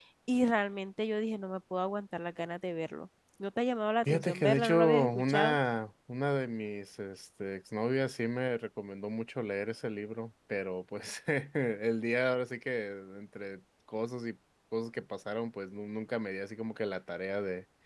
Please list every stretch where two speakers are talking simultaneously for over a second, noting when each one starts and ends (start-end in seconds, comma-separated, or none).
4.1-5.6